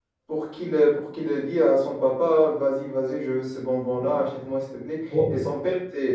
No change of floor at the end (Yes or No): Yes